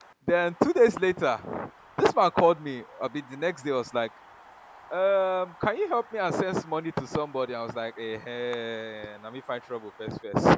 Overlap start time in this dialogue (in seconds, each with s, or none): none